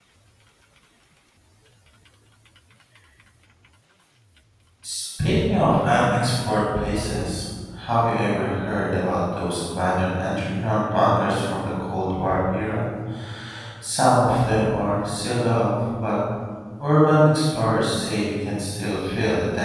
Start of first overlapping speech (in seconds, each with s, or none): none